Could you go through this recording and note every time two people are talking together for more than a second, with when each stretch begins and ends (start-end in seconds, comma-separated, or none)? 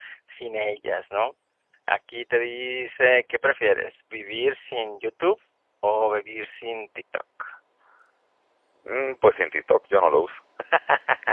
none